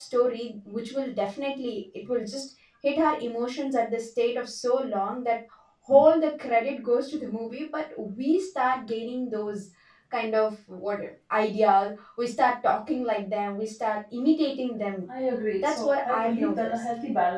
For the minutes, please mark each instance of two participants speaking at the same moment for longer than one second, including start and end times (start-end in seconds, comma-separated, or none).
15.6-16.8